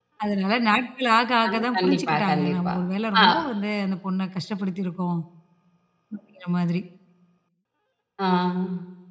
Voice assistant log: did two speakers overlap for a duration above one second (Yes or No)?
Yes